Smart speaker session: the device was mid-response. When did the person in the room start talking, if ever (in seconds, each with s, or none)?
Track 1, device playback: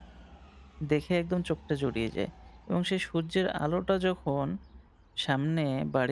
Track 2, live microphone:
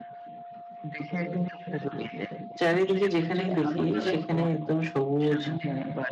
2.6 s